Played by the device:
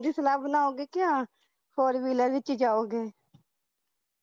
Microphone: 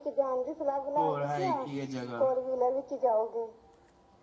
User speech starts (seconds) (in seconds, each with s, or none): 1.0 s